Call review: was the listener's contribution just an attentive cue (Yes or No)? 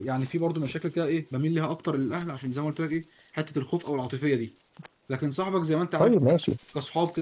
Yes